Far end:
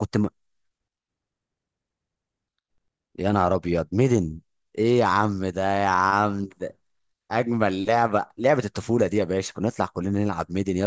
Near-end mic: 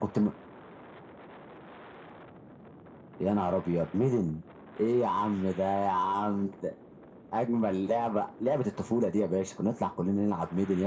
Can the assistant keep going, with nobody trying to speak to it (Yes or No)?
Yes